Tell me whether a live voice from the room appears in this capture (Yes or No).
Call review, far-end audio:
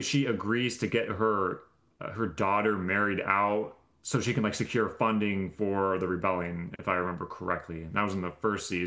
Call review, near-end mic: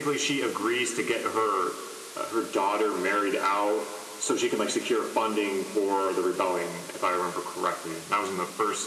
No